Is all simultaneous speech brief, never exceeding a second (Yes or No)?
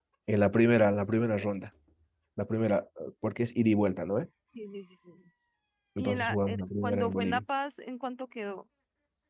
No